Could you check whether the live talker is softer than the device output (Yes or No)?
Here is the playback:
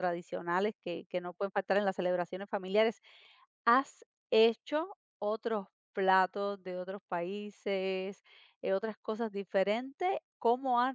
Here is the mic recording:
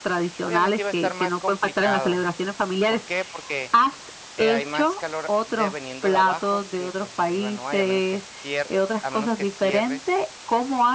Yes